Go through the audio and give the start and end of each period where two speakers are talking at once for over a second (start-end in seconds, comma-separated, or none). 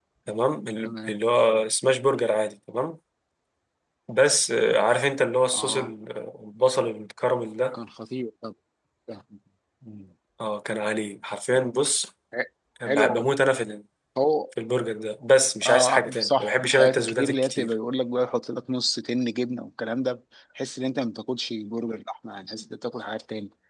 15.6-17.7